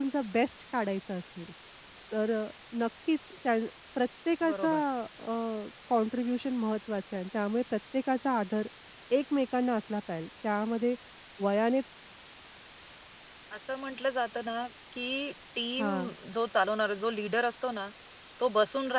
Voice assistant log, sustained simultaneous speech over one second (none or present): none